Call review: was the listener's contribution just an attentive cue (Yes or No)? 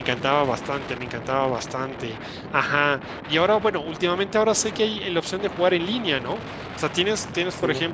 Yes